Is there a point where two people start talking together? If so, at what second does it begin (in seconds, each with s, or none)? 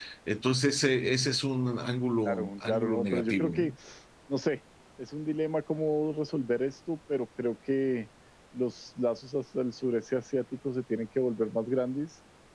2.2 s